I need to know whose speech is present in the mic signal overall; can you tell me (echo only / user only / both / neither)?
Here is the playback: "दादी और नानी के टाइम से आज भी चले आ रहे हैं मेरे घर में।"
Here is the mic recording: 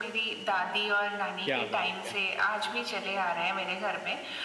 both